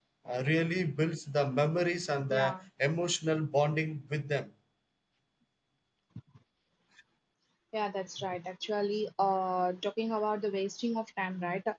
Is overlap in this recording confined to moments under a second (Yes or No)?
Yes